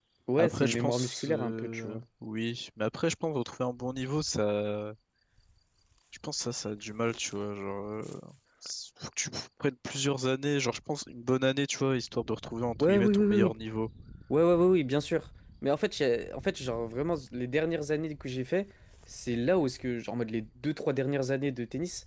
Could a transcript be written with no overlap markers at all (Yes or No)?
No